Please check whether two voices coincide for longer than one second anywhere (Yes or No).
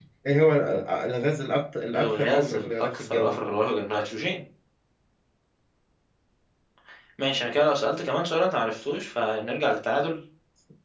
Yes